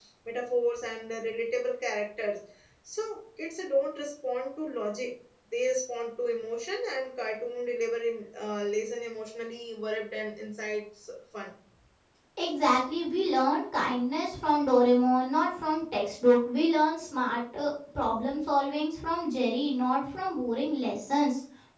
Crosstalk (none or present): none